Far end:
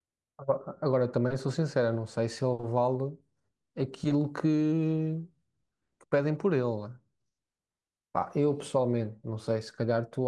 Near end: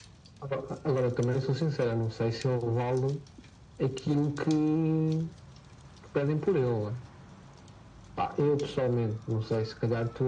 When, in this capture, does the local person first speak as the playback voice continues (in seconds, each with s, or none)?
none